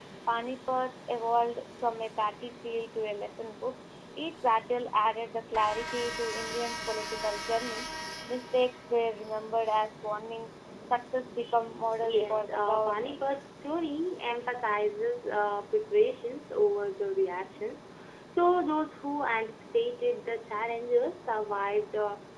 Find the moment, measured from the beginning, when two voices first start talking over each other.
12.0 s

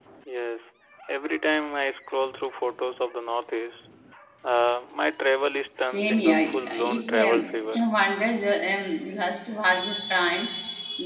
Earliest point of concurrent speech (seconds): 5.8 s

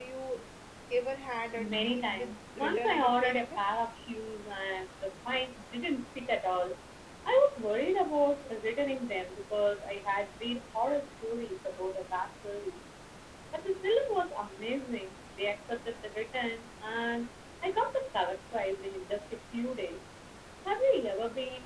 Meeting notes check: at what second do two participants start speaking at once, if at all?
1.6 s

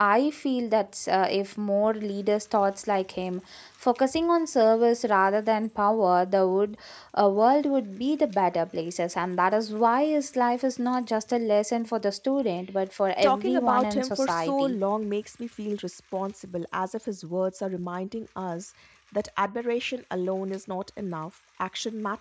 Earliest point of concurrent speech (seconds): 13.2 s

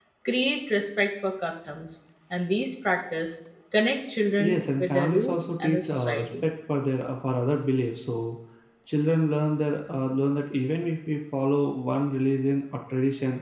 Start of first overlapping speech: 4.4 s

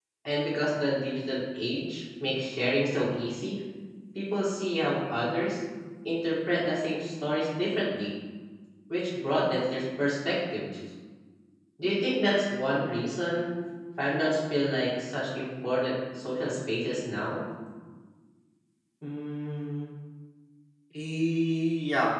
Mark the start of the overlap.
none

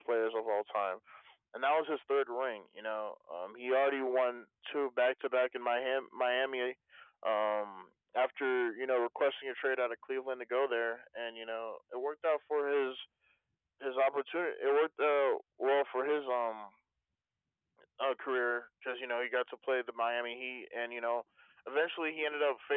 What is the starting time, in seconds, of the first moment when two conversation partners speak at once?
none

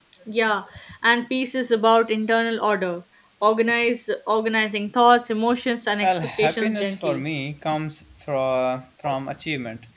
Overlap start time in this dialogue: 6.0 s

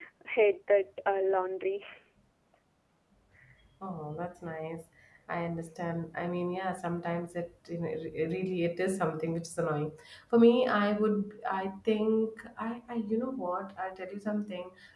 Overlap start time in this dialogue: none

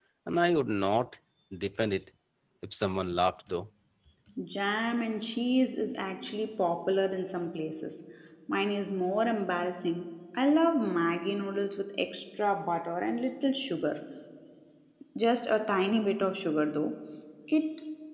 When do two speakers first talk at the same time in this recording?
none

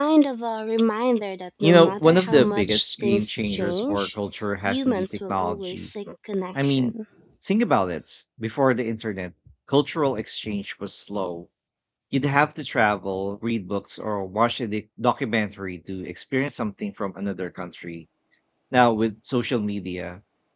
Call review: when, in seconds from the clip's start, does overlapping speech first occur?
1.6 s

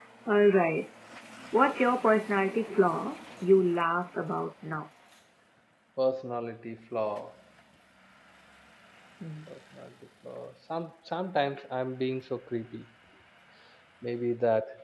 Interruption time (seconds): none

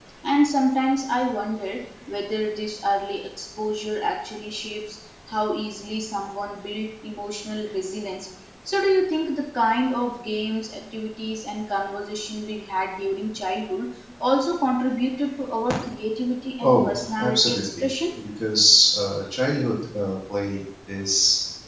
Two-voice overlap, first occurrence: 16.6 s

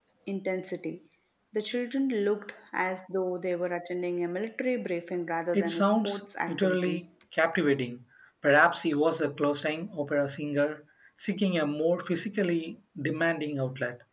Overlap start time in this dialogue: 5.5 s

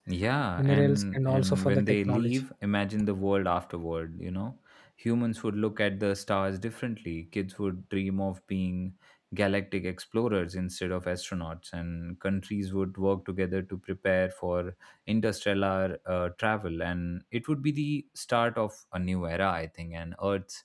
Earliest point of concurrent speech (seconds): 0.6 s

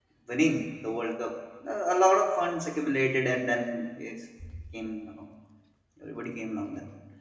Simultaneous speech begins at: none

